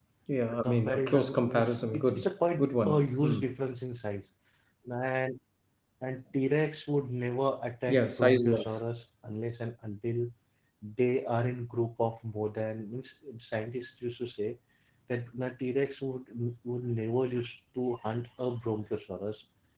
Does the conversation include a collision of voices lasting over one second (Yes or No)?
Yes